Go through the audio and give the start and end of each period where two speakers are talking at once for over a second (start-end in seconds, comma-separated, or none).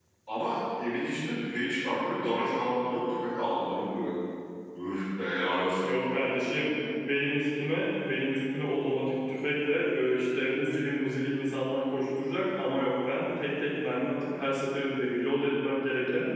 none